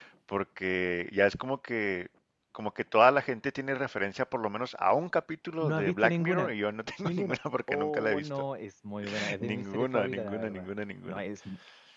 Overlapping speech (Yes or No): Yes